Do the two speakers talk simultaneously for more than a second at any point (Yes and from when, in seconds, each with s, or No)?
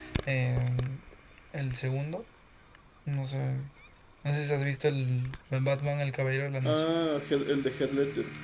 No